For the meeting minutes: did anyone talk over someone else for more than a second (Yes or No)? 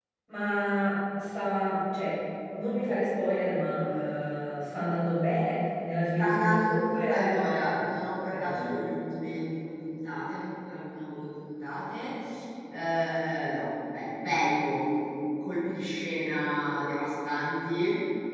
Yes